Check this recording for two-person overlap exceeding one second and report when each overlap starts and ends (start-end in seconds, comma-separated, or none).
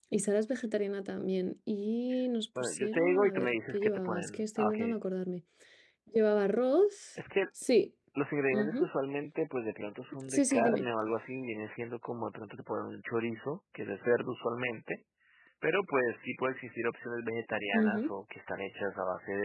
2.6-4.8